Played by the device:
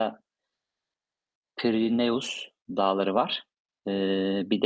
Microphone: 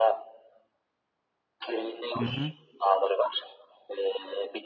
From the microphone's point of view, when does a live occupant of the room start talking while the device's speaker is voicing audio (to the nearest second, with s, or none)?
2 s